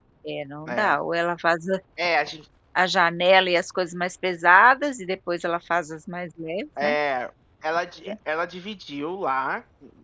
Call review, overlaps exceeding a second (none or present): none